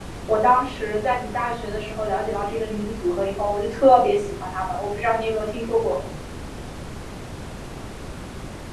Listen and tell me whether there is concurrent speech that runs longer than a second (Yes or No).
No